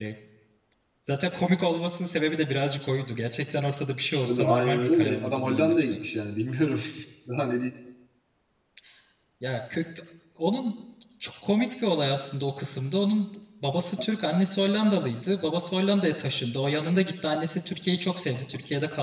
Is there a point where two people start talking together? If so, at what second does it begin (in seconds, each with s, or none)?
4.2 s